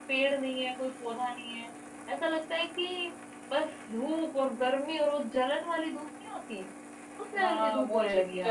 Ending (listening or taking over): taking over